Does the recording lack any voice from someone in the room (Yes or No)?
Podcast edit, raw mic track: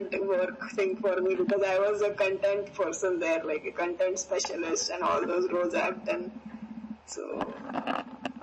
Yes